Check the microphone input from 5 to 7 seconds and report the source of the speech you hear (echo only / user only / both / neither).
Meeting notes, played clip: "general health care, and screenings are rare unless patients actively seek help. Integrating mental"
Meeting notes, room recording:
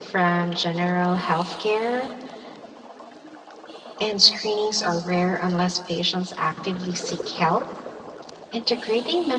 echo only